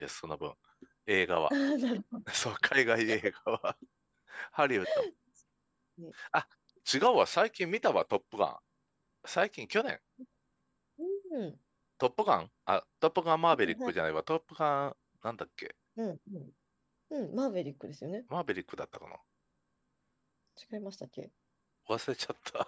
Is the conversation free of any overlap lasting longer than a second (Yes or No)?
Yes